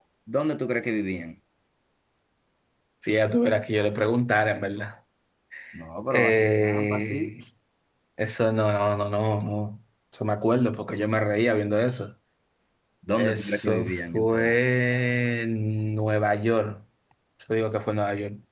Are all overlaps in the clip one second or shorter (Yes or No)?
No